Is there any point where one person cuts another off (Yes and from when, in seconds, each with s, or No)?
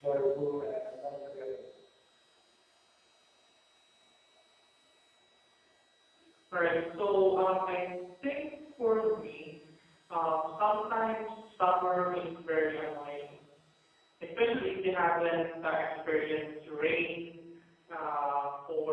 No